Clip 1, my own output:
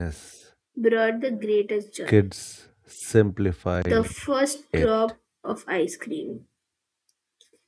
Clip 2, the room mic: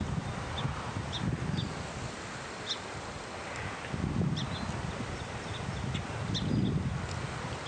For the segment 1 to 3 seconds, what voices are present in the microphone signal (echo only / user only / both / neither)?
neither